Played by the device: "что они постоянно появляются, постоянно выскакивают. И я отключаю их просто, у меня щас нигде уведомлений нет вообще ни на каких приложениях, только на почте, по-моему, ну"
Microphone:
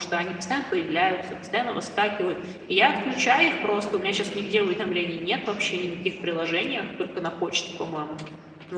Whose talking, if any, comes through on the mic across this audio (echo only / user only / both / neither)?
both